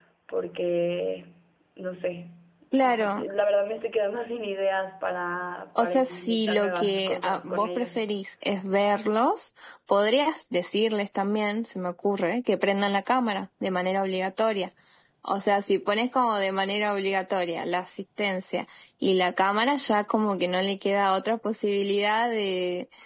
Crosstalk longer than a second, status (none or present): present